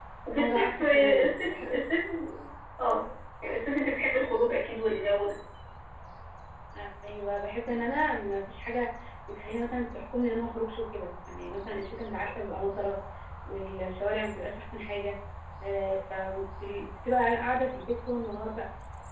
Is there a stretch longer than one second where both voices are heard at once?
Yes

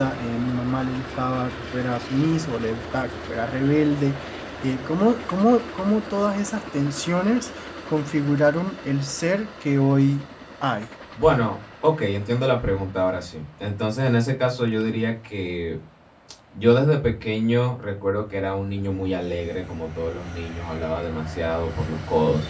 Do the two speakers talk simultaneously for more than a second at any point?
No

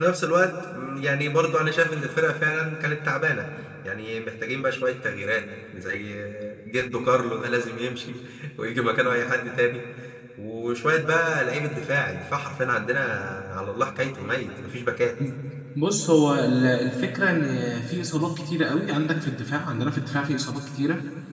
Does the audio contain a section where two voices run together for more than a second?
No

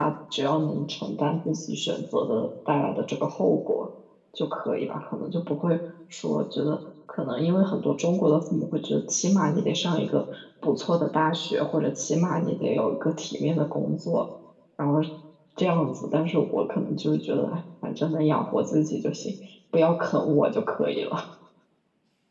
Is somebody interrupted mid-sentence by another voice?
No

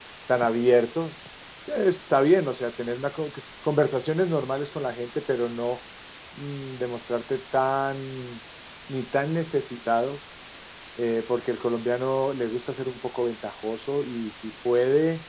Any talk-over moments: No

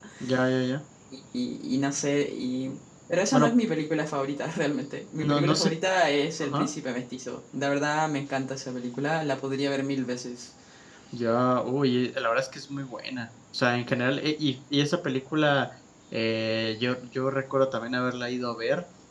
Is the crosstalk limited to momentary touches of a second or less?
Yes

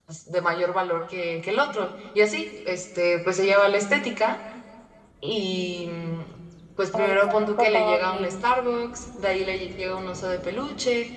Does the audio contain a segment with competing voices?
Yes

